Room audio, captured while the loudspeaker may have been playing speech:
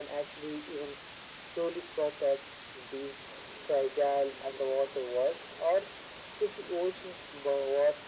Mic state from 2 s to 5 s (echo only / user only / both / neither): echo only